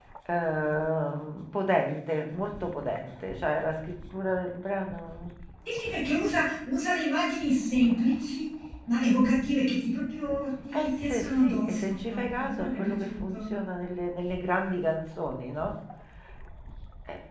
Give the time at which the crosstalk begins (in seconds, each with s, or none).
10.7 s